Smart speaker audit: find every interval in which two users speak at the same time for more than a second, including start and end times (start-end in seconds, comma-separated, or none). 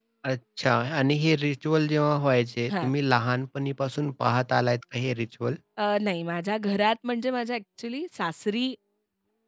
none